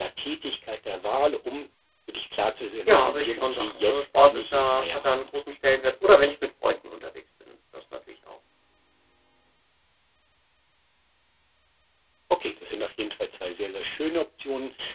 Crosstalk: present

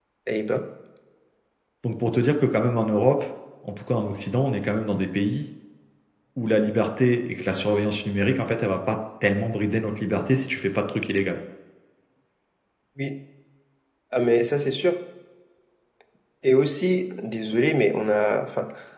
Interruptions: none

